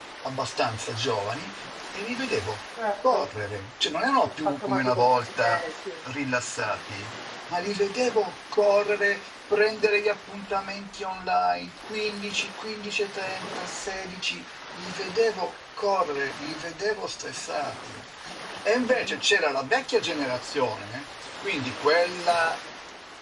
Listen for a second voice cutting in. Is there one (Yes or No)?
Yes